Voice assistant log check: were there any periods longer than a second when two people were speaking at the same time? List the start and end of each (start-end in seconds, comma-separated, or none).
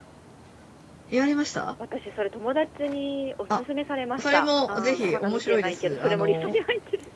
4.2-6.6